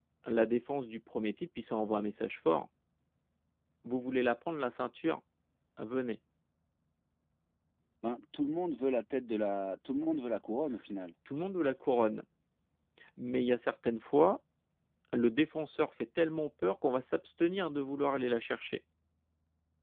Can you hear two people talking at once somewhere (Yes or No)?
No